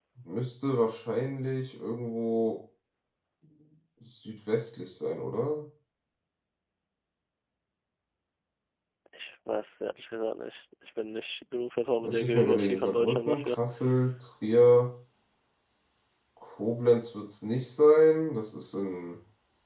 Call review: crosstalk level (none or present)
present